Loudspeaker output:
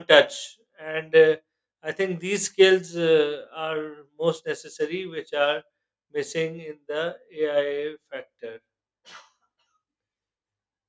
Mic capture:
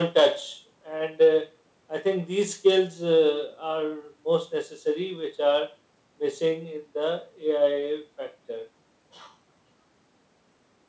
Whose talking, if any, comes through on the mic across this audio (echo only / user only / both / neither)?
echo only